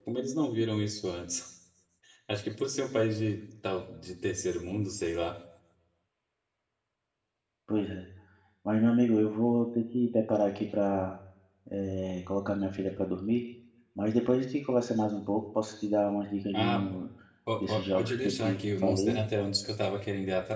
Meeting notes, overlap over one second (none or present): present